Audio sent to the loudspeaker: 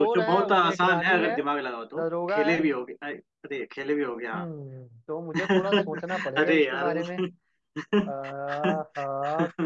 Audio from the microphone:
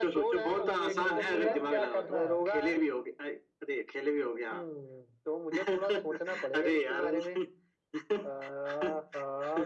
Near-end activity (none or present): present